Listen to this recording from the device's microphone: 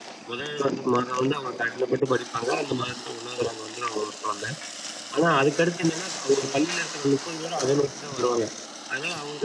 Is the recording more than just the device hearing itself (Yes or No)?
No